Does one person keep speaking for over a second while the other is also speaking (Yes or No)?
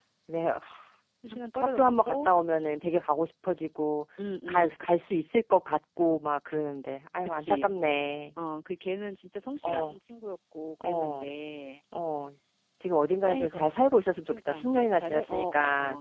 Yes